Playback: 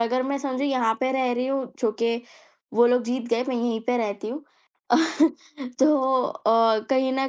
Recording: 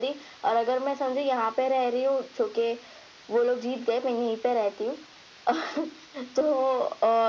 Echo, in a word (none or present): present